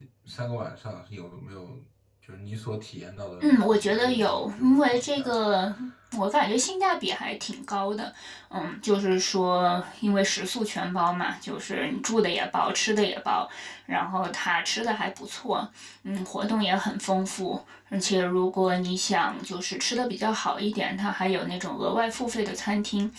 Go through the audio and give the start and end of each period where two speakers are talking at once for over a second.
3.4-5.3

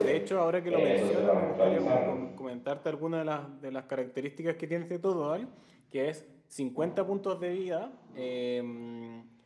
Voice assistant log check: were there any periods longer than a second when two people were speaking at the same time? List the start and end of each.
0.7-2.1

